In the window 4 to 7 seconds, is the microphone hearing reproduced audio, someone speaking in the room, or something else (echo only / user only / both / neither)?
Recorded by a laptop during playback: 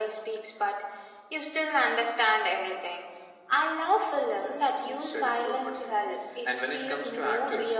echo only